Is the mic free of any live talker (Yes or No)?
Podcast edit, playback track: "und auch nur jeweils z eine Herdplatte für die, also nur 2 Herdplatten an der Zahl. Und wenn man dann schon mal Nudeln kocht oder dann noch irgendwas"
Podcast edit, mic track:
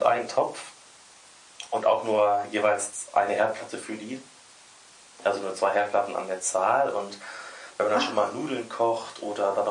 No